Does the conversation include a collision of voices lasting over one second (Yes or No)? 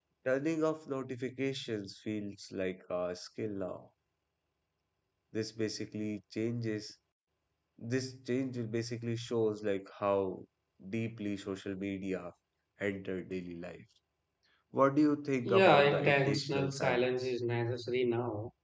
Yes